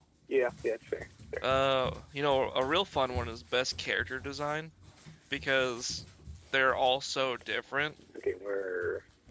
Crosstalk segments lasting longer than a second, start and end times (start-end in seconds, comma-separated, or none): none